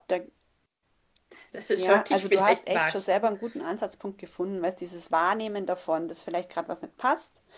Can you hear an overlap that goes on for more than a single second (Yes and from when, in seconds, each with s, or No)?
Yes, from 1.8 s